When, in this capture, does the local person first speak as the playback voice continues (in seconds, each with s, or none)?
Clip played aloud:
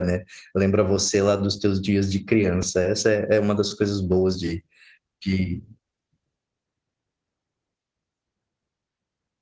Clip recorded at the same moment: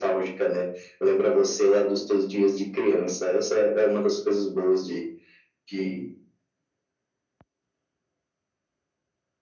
none